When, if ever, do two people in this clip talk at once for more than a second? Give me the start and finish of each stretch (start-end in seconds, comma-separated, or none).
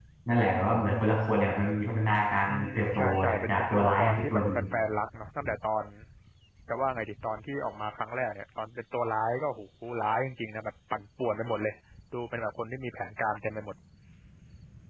2.5-4.4